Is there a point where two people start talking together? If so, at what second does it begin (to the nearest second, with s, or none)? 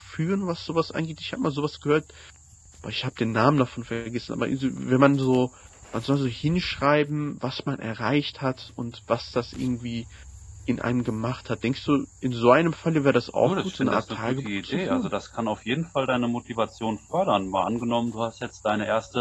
13 s